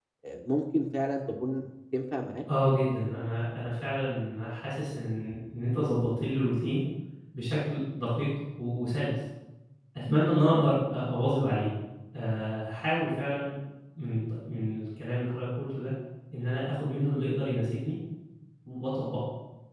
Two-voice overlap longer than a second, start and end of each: none

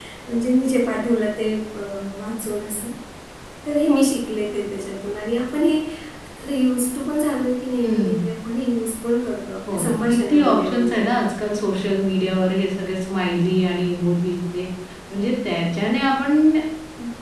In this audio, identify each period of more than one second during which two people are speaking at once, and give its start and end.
9.7-11.1

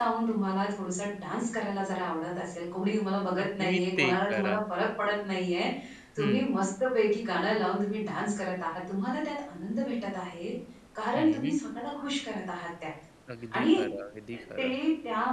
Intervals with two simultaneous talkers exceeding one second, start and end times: 3.4-4.6

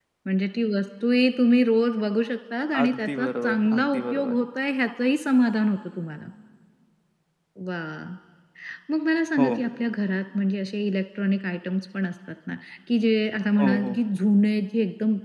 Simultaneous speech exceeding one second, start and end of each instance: 2.8-4.3

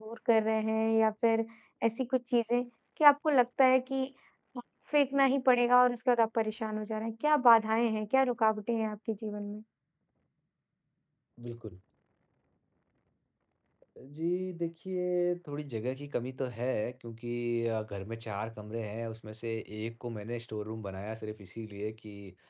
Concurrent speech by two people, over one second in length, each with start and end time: none

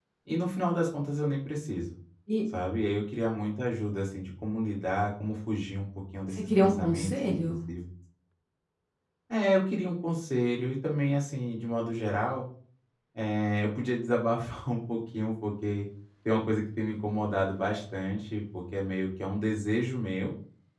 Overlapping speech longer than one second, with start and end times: 6.3-7.6

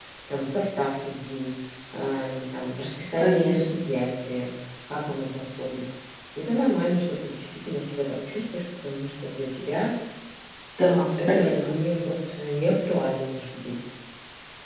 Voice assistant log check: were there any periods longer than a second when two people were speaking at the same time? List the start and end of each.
none

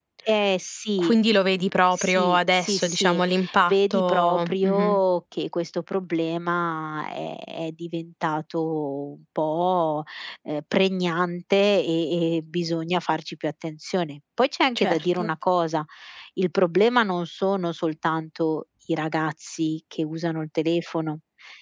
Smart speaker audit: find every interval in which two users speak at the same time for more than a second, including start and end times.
1.9-3.2, 3.7-5.0

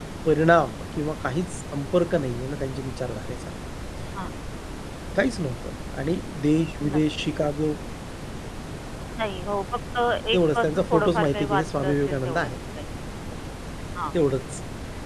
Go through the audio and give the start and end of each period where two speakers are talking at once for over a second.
10.3-12.5

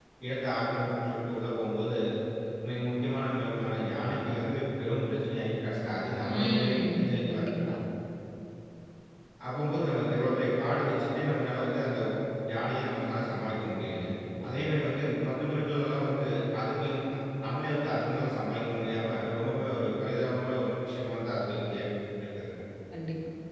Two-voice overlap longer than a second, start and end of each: 6.3-7.7

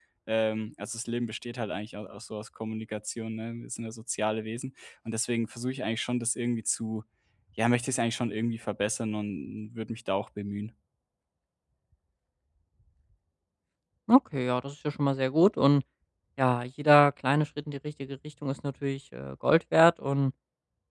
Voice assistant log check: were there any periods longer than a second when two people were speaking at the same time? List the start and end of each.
none

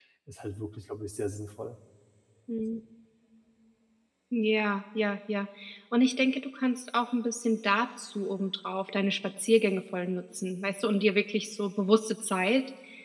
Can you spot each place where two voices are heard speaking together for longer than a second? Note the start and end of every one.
none

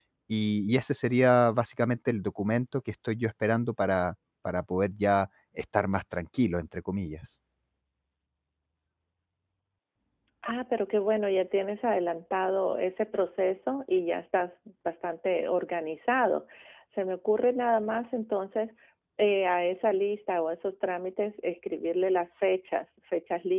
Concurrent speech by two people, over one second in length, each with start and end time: none

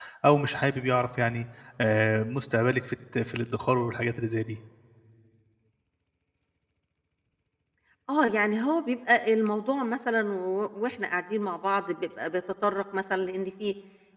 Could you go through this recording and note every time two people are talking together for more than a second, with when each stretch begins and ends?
none

